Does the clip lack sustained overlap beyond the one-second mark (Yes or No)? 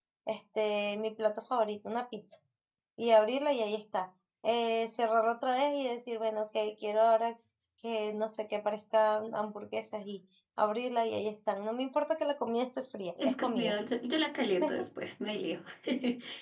Yes